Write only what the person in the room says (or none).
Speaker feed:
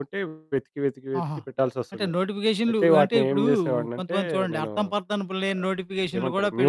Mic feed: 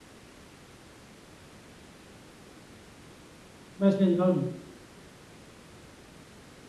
మెసేజు‌లు. అవును.